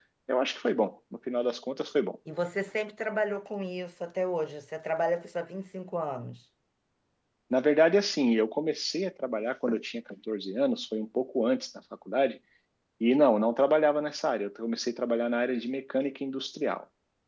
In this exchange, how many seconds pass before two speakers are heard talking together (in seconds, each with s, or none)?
none